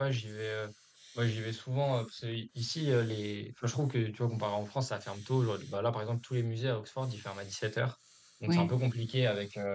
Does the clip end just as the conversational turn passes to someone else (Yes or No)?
No